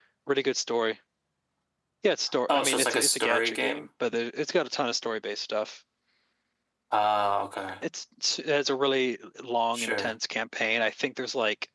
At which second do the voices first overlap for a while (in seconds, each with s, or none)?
2.5 s